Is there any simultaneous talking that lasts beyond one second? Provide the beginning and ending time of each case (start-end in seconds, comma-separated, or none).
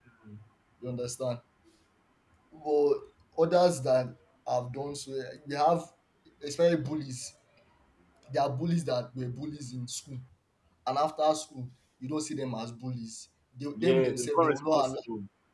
13.8-15.0